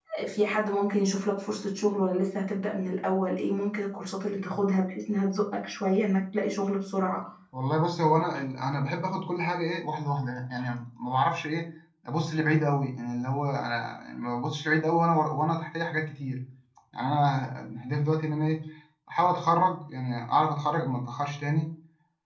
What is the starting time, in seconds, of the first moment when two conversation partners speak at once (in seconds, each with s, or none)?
none